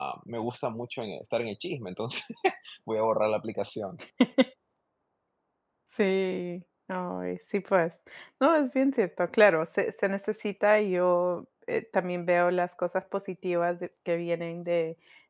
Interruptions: none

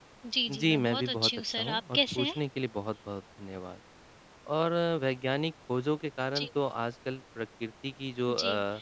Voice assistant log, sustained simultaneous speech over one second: present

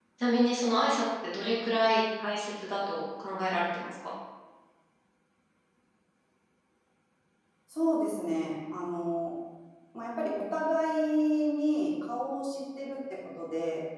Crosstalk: none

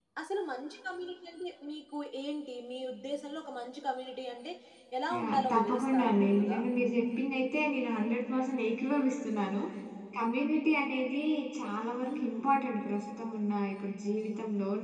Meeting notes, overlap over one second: present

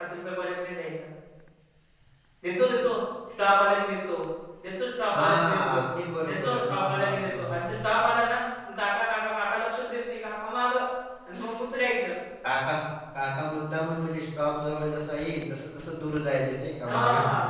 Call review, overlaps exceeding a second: present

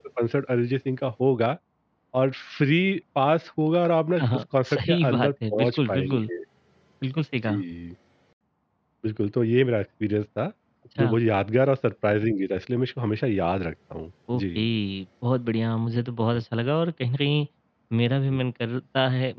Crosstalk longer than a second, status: present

